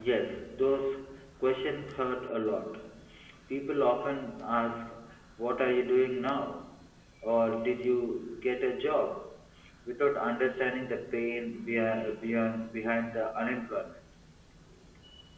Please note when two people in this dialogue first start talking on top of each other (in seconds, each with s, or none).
none